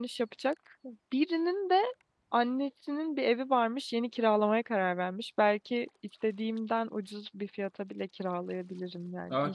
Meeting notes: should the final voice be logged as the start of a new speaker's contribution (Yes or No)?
Yes